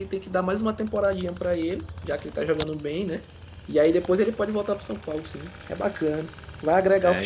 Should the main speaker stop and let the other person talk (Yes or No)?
Yes